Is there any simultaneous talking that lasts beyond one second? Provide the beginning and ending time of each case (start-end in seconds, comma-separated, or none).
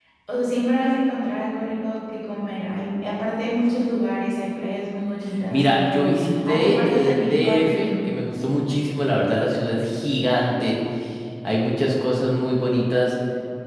5.5-8.1